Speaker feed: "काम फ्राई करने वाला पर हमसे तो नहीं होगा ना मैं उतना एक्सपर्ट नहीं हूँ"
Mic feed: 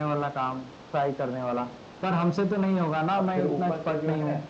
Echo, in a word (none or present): present